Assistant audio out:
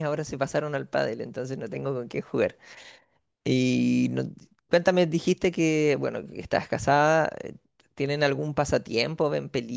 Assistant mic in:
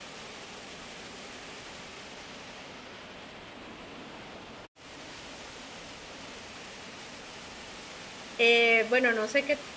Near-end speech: present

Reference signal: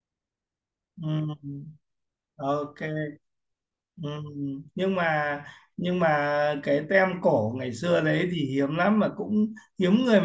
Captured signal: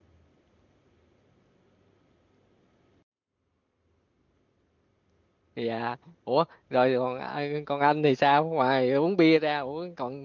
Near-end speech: present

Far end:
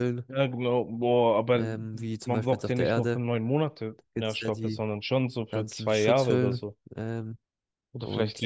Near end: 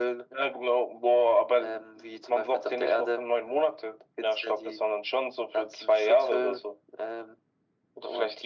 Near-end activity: none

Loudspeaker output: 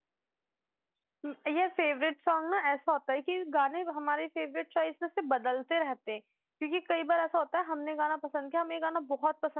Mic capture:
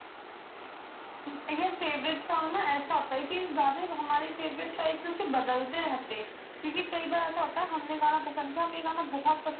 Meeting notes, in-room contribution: none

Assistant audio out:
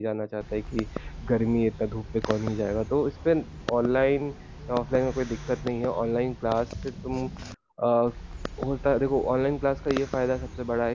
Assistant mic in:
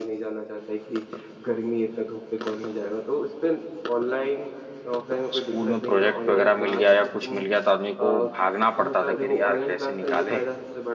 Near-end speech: present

